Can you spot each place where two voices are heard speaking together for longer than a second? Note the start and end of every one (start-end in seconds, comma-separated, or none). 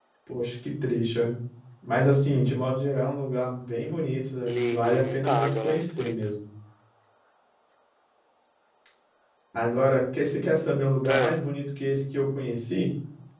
4.5-6.3